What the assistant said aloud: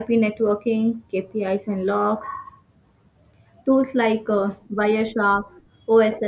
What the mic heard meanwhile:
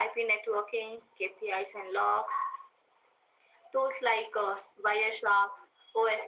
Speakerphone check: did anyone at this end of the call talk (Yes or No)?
No